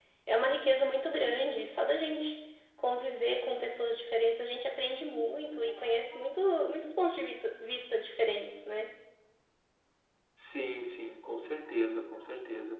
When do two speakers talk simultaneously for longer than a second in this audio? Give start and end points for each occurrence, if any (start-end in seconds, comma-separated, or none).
none